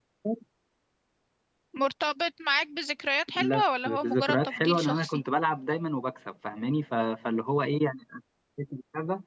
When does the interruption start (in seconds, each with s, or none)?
3.3 s